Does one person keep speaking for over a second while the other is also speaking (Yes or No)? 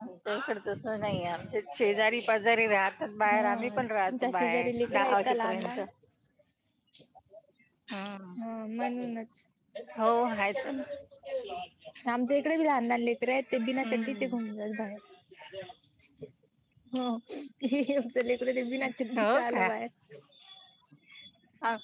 Yes